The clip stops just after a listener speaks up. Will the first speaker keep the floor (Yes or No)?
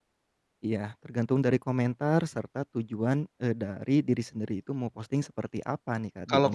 No